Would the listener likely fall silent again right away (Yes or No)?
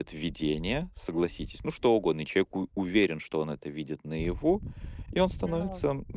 Yes